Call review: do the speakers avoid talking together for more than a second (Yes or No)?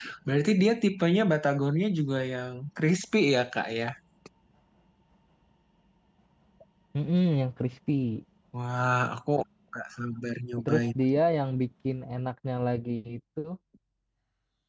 Yes